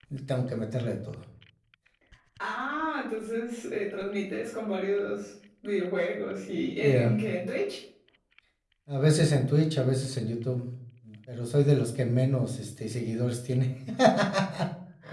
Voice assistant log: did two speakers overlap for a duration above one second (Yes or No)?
No